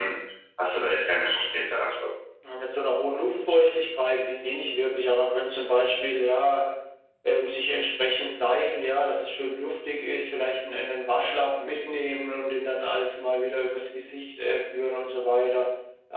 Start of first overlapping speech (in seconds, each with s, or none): none